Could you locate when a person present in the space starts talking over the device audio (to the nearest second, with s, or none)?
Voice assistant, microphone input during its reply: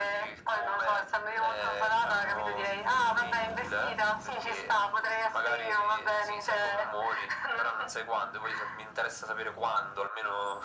none